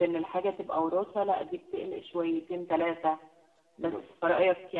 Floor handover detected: No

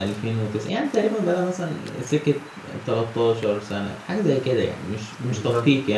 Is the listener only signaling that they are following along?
Yes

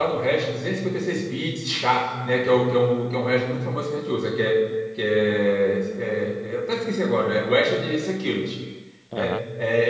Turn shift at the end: No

